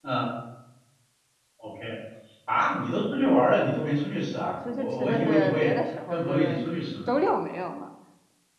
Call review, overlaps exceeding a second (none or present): present